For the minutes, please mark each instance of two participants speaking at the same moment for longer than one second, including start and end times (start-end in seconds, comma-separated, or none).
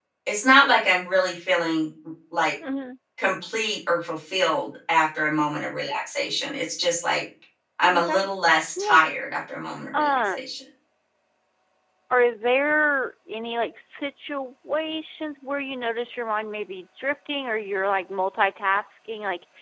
none